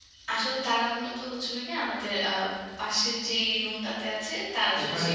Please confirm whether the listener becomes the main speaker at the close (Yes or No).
No